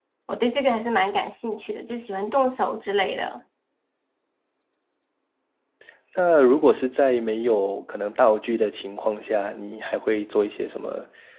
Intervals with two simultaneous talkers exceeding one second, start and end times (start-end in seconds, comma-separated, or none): none